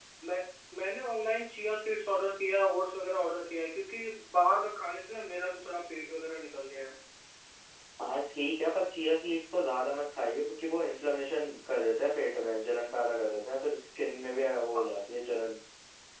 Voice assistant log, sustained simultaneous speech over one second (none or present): none